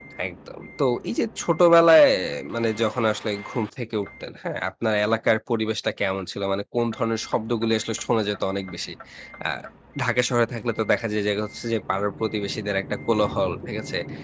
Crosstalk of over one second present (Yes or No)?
No